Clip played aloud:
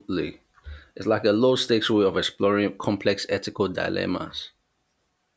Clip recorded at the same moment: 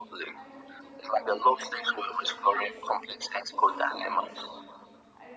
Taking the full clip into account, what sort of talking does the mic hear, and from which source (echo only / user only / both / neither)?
both